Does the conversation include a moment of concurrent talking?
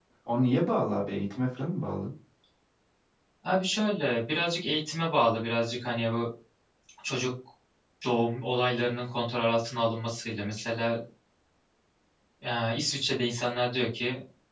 No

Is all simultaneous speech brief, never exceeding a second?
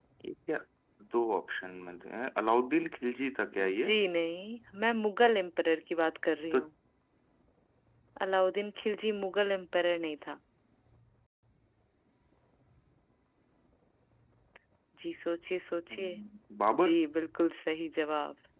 Yes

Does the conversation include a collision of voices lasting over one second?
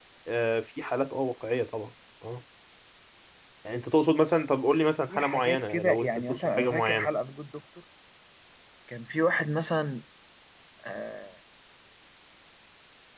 Yes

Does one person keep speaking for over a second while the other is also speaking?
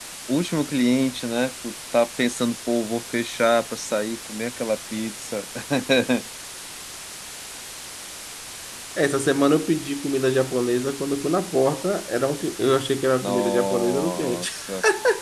Yes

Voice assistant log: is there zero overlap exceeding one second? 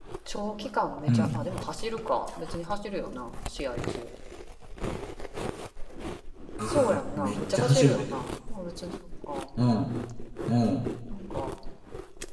No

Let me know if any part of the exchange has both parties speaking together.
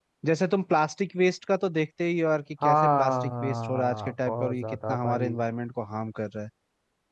Yes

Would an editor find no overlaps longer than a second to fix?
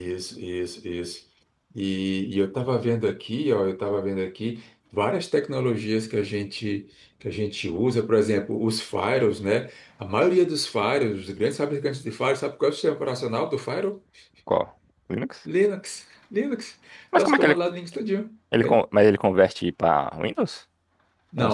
Yes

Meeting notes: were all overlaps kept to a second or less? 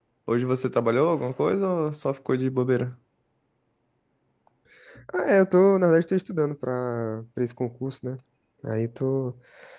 Yes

